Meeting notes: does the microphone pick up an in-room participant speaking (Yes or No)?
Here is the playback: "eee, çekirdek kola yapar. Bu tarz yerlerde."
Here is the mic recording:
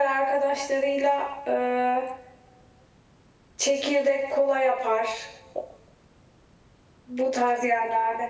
No